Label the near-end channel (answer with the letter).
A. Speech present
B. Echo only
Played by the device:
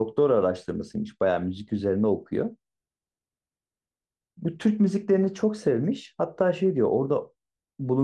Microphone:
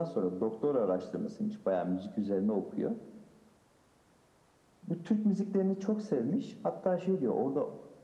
B